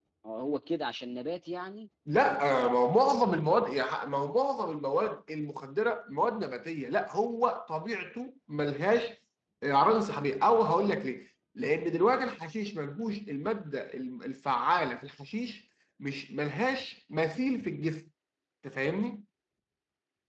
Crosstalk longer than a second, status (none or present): none